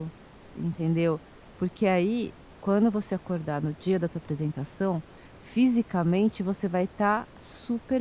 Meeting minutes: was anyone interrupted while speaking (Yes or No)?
No